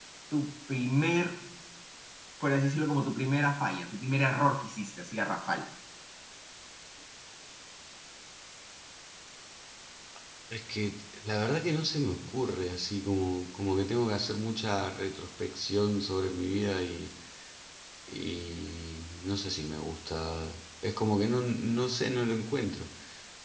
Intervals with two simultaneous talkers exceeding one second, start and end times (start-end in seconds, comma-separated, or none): none